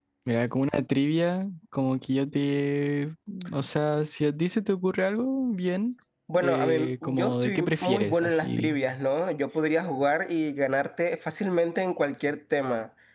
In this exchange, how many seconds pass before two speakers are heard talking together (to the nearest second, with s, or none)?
6 s